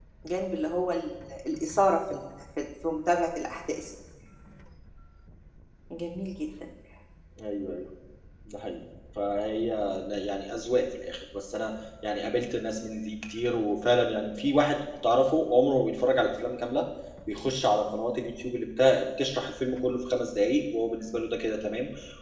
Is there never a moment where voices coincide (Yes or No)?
Yes